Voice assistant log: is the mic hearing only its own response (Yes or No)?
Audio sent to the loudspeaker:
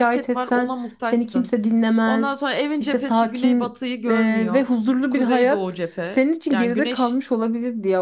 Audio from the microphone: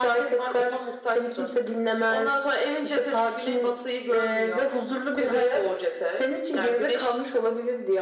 Yes